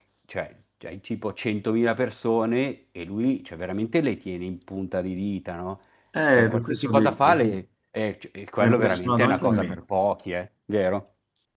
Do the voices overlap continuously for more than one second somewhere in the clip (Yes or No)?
Yes